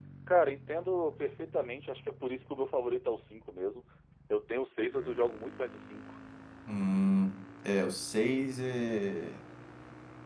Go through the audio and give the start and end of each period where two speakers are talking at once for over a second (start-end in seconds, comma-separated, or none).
none